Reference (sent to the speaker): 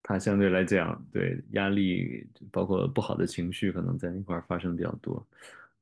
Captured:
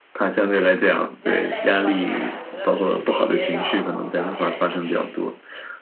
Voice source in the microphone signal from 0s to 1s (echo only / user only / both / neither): echo only